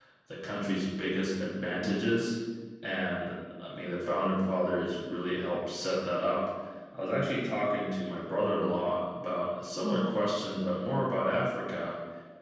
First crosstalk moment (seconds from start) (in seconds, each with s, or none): none